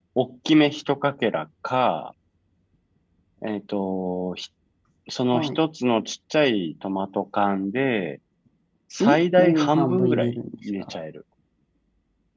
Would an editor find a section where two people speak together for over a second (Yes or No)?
Yes